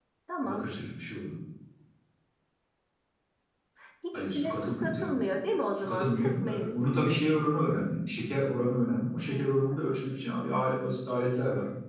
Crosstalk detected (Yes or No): Yes